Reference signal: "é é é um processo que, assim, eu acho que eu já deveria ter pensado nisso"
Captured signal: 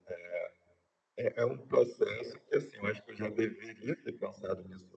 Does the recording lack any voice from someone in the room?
Yes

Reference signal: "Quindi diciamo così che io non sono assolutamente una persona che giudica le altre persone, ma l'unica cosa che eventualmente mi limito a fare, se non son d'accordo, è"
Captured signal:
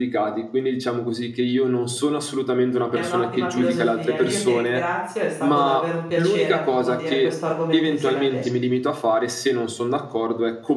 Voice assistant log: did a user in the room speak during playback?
Yes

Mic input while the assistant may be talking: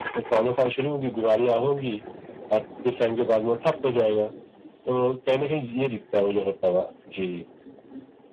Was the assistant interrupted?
No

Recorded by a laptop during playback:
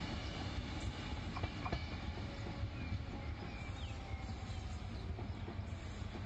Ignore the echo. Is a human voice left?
No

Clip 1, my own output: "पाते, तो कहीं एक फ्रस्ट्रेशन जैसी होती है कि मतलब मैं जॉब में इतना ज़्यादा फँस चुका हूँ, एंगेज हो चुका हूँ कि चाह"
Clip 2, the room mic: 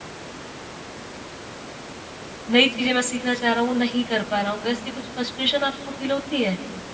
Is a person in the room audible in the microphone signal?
Yes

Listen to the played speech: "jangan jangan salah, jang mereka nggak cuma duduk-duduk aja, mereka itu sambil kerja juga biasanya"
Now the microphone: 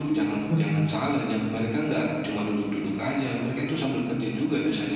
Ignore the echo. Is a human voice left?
Yes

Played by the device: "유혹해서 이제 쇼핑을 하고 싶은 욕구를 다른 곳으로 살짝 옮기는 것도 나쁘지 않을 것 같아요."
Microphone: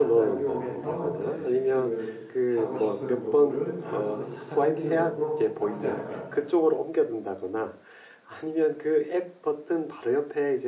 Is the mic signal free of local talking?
No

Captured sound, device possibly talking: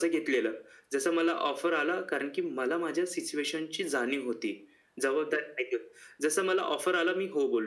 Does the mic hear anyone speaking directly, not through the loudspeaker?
No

